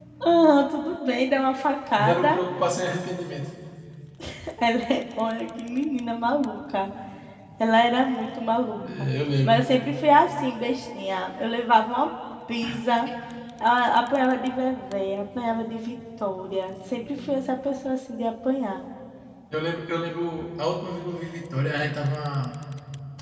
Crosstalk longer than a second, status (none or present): none